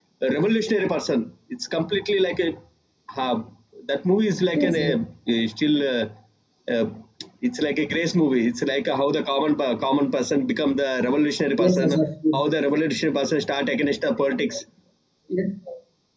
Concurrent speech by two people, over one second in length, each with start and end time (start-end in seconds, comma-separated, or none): none